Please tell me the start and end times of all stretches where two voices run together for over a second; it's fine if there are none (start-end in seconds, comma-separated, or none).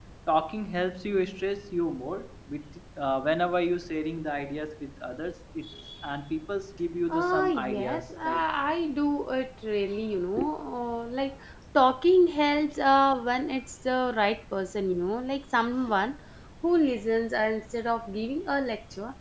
7.1-8.4